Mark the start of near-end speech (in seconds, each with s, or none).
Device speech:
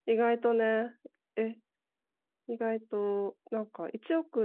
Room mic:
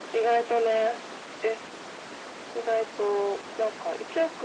none